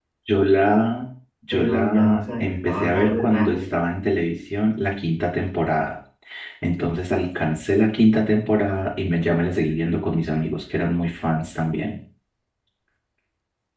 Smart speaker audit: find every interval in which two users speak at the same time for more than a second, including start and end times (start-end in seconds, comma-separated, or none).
1.5-3.7